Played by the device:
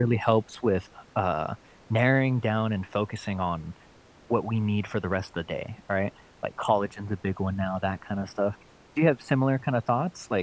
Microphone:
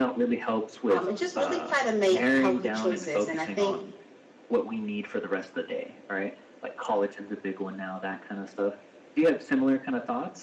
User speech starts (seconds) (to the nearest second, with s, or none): 1 s